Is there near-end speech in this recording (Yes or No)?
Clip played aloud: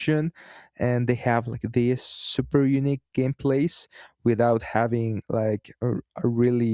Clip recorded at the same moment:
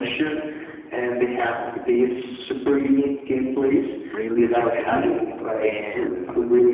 Yes